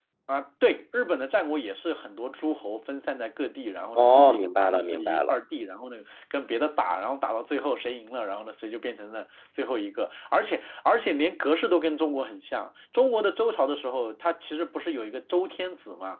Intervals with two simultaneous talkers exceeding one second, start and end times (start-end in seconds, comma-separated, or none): 4.0-5.3